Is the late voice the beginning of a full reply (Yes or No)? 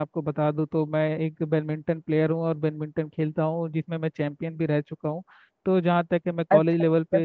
Yes